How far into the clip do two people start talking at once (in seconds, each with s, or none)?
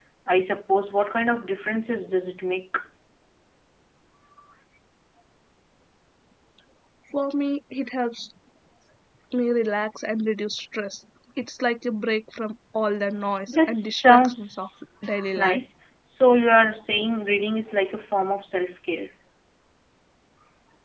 13.5 s